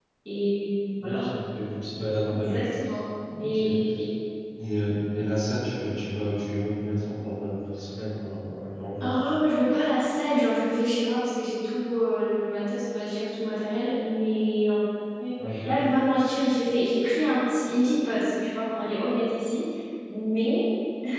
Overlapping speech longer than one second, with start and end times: none

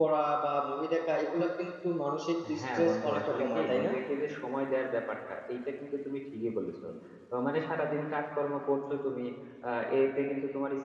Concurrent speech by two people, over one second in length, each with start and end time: 2.6-3.9

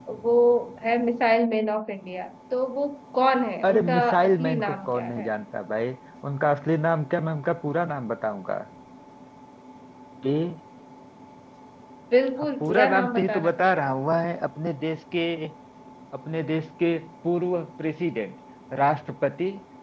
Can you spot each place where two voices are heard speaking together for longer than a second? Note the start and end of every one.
3.6-5.3, 12.6-13.9

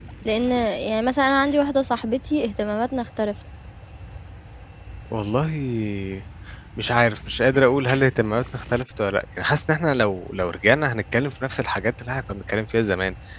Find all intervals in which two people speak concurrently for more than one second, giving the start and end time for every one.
none

